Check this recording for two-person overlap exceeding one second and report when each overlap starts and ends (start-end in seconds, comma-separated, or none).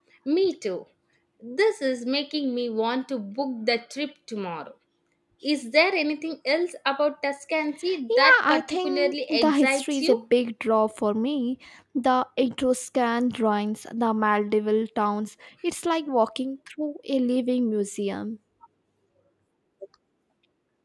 8.2-10.2